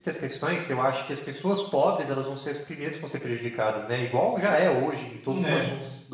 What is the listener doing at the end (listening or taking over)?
listening